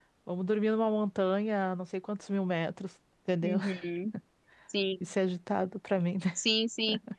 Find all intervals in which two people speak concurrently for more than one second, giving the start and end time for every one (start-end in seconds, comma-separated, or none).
none